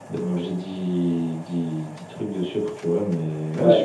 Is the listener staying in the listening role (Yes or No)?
Yes